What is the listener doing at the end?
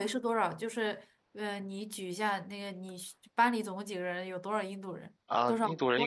taking over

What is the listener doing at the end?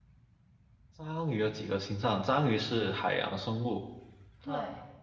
listening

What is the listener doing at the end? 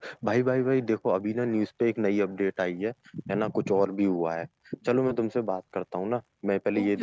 taking over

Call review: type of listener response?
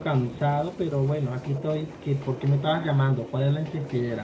taking over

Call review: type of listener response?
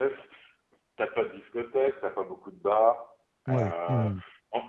listening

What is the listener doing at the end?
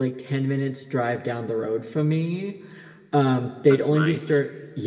listening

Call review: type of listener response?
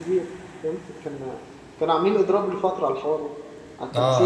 taking over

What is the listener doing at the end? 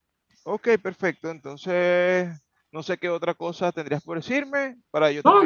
taking over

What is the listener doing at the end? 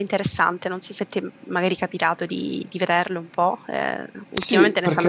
taking over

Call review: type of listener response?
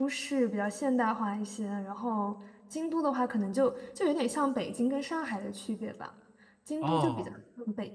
listening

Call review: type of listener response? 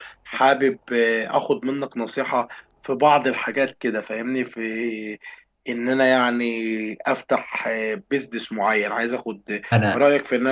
listening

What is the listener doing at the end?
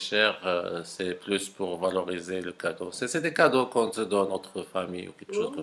taking over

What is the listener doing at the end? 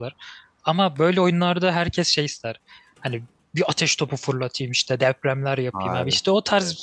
listening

